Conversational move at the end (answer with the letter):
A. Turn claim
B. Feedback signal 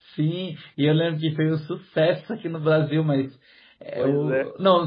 B